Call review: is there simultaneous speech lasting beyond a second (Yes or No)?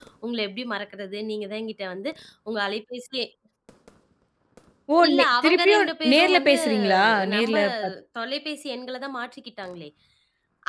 Yes